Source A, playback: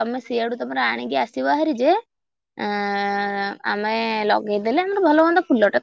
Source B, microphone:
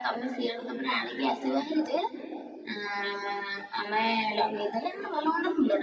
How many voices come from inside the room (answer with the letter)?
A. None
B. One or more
A